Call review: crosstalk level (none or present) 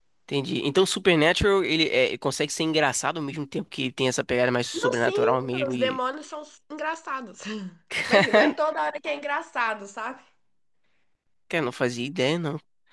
present